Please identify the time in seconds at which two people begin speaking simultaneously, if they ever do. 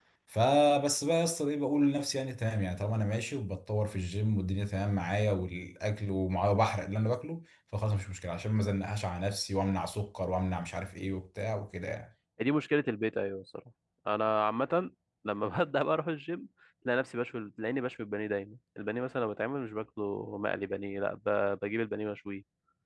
none

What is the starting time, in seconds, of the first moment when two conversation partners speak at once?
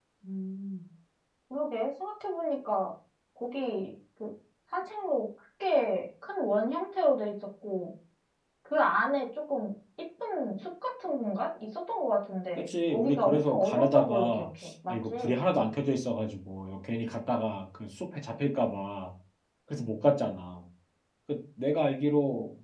12.6 s

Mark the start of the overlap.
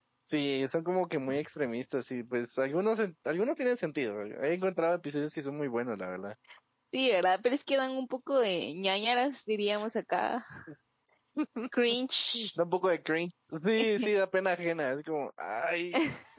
none

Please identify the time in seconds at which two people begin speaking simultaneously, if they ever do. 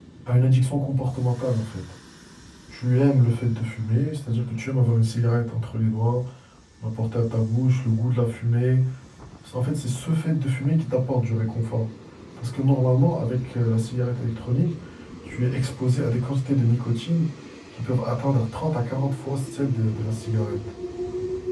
none

